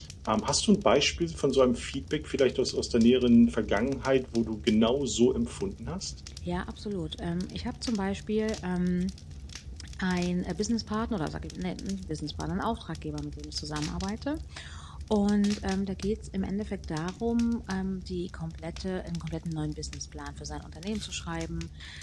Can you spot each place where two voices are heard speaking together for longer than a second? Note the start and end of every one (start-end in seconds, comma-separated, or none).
none